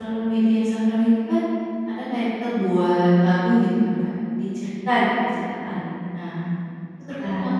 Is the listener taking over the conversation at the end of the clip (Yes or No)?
No